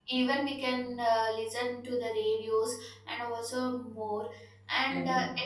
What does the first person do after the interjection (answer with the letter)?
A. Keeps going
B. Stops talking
A